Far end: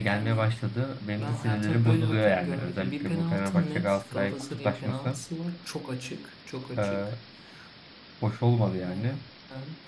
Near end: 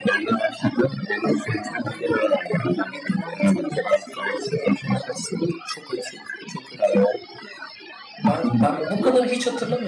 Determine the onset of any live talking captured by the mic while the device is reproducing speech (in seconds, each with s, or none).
8.3 s